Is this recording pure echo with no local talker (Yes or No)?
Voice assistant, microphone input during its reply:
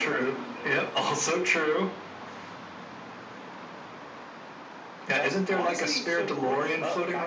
Yes